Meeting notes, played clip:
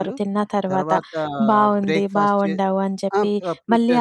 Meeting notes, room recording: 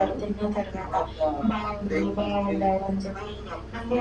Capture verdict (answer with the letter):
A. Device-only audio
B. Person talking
A